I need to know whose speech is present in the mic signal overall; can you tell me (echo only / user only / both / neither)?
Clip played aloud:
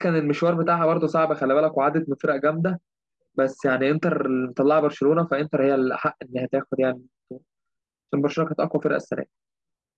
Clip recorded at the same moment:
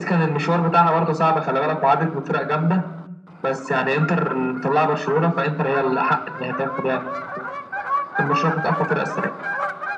echo only